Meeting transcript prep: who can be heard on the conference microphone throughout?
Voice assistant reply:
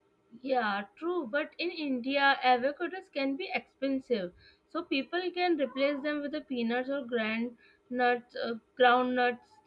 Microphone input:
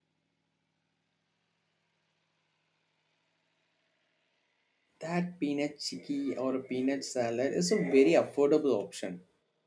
user only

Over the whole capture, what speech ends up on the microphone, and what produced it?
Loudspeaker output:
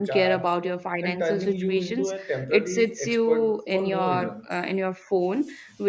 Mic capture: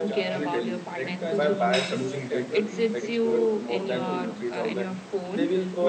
both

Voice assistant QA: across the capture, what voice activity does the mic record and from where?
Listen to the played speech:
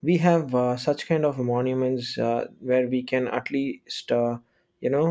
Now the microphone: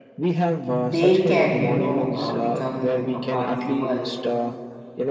both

